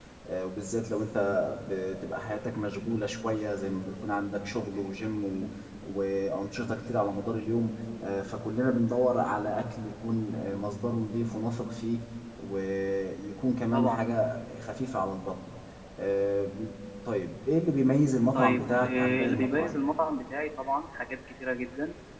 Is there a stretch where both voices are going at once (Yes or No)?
Yes